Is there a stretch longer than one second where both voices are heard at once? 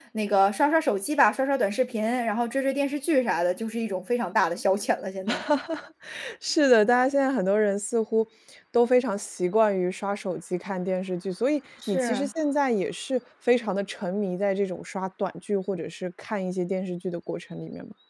No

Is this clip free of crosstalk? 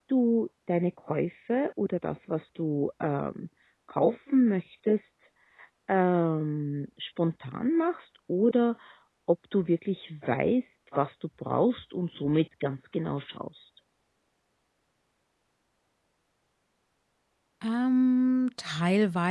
Yes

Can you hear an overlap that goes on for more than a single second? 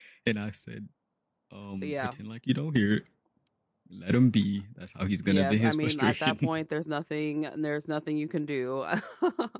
Yes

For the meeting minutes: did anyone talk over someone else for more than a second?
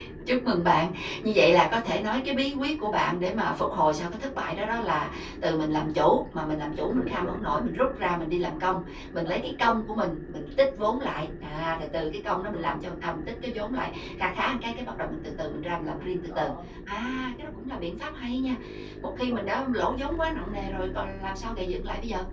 No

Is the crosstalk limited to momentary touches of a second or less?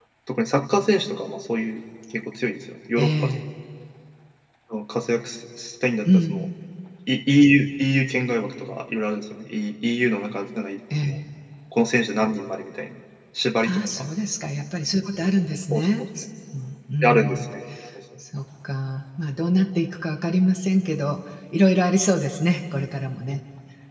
Yes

